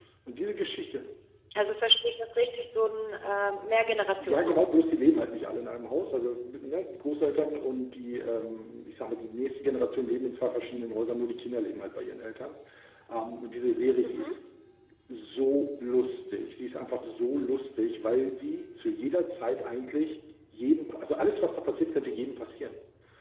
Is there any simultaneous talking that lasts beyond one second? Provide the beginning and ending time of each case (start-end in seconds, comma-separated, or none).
none